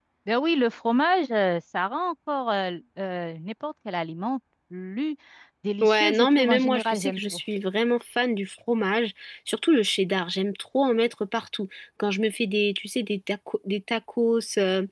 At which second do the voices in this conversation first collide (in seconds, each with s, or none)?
5.8 s